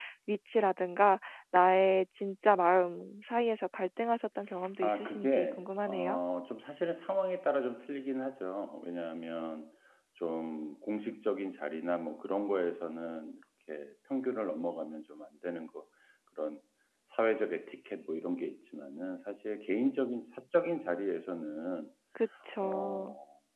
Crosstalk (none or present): present